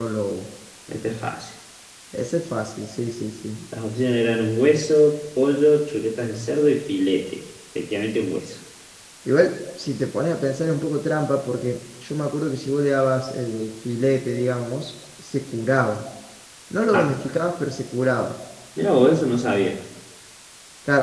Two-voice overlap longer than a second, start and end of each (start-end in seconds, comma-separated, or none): none